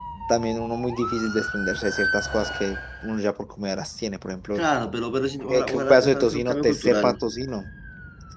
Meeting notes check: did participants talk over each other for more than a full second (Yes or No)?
Yes